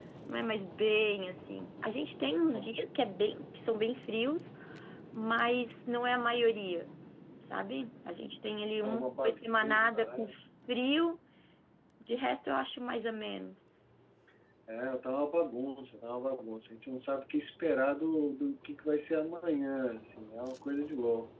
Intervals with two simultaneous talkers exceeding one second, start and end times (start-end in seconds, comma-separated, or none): 8.8-10.2